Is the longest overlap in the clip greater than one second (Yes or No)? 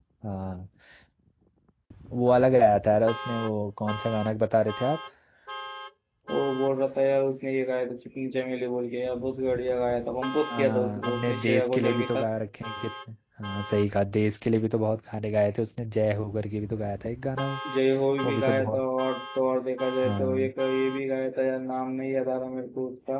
Yes